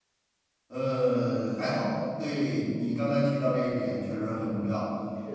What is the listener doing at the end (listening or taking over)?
listening